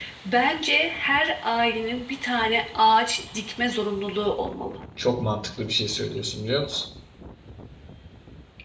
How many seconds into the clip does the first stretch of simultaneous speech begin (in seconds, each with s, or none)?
none